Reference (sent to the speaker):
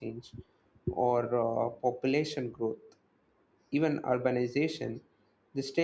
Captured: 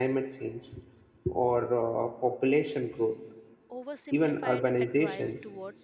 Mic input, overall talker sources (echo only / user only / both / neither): both